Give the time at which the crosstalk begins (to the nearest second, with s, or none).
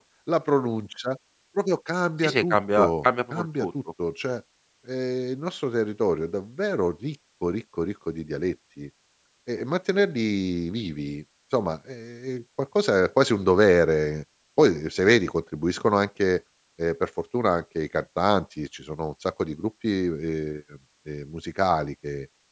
2 s